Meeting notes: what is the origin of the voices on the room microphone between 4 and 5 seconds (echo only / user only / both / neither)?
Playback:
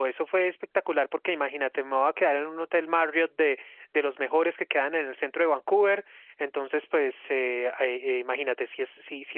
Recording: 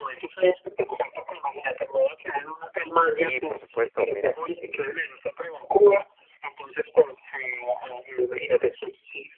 both